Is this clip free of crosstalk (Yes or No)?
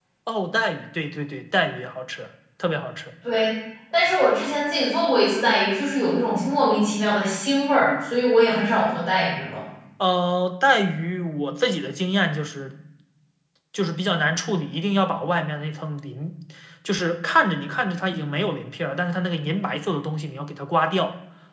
Yes